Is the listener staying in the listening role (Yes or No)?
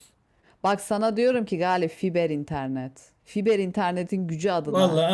No